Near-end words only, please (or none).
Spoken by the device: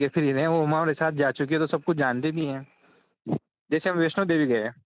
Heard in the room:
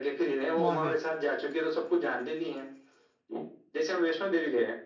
وہاں پہ